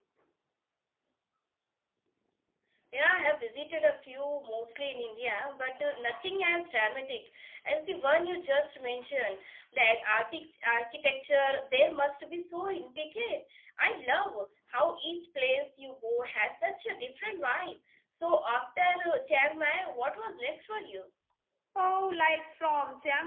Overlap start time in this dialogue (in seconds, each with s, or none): none